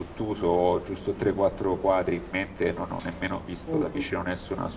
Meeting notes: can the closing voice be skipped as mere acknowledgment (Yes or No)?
Yes